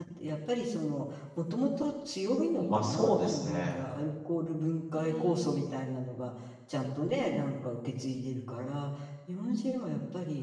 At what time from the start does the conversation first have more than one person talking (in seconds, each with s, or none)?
2.5 s